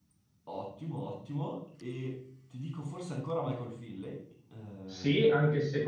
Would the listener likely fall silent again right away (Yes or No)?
No